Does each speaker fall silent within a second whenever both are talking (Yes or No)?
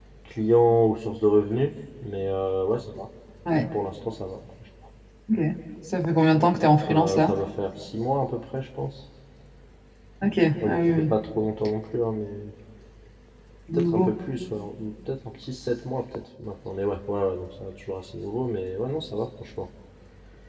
Yes